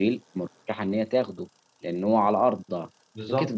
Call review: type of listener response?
listening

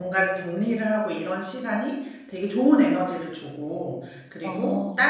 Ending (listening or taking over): listening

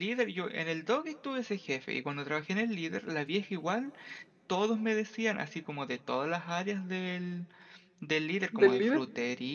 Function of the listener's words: listening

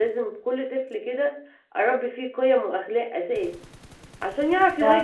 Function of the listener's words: listening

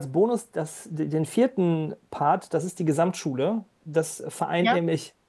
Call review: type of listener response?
listening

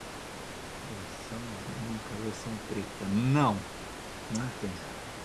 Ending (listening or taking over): taking over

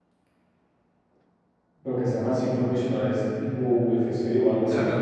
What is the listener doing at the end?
taking over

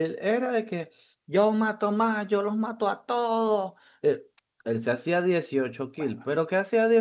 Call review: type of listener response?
listening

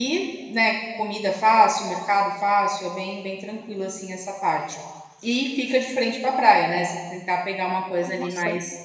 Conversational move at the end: listening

